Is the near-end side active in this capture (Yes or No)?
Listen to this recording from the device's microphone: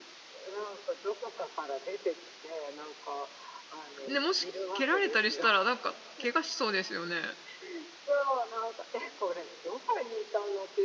Yes